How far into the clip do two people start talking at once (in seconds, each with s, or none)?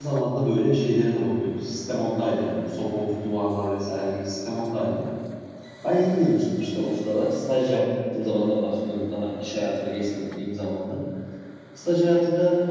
none